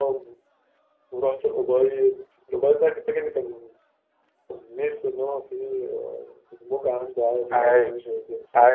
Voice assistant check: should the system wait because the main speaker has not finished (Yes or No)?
No